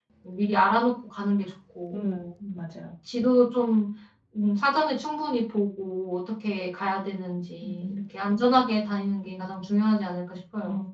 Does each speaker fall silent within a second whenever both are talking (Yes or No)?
Yes